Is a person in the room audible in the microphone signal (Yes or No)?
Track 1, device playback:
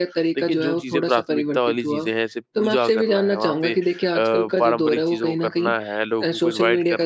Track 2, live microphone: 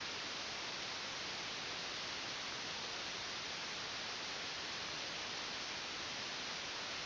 No